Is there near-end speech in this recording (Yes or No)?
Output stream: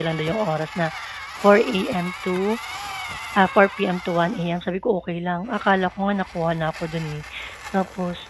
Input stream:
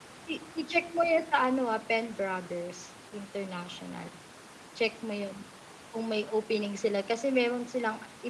Yes